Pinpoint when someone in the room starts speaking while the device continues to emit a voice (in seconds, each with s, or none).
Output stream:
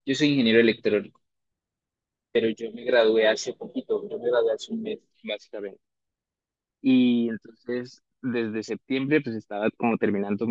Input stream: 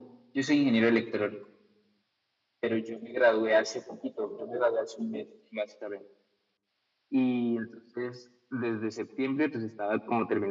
none